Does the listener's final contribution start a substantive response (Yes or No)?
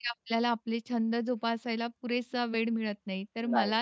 No